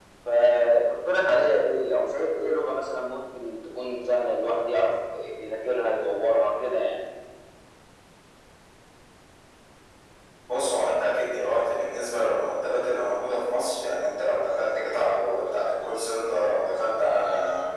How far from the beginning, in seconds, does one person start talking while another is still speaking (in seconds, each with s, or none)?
none